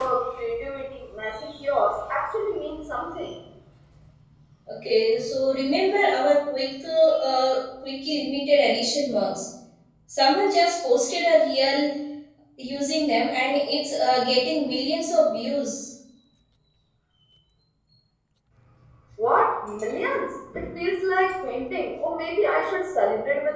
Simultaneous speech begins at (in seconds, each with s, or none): none